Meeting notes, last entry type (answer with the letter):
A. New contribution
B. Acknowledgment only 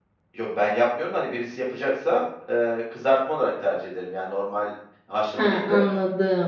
A